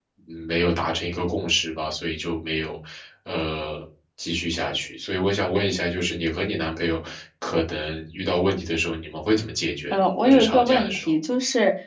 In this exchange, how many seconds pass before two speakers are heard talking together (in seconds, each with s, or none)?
9.9 s